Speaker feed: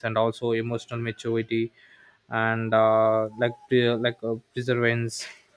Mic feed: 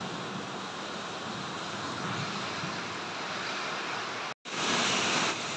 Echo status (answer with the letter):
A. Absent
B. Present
A